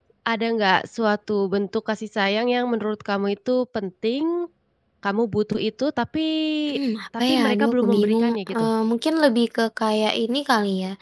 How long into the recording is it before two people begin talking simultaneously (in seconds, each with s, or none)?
7.3 s